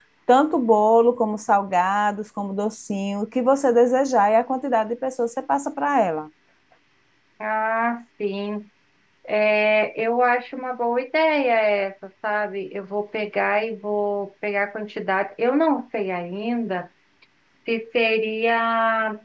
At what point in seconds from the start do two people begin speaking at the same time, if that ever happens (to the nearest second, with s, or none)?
none